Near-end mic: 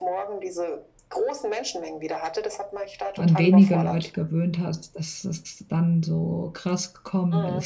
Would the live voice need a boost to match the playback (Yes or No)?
No